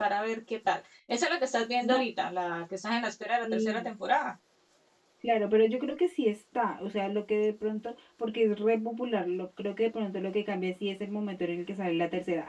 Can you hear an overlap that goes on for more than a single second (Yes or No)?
No